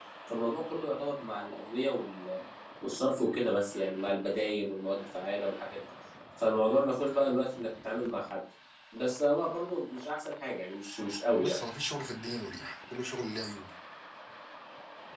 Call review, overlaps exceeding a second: none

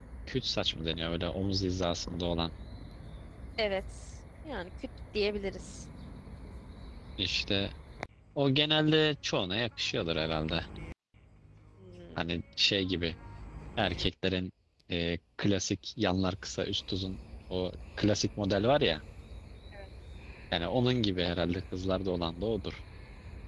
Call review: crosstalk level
none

